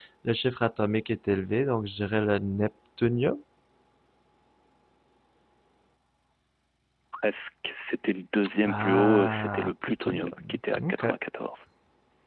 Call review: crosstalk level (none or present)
present